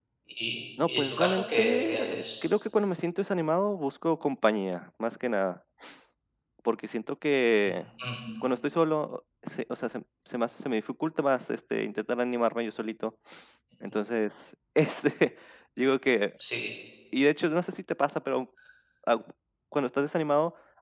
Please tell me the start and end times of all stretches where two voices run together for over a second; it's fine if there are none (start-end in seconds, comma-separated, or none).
0.9-2.2